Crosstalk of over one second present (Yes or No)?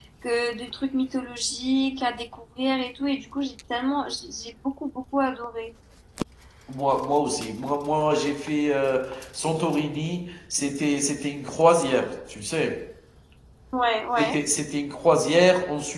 No